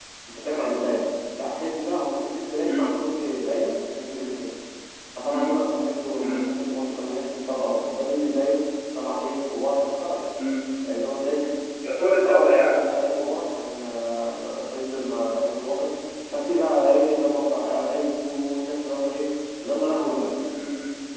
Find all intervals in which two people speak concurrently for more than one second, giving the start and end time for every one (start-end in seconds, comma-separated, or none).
none